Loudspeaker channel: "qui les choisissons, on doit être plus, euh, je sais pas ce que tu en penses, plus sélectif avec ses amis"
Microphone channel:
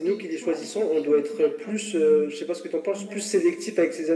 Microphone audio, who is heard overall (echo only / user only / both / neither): both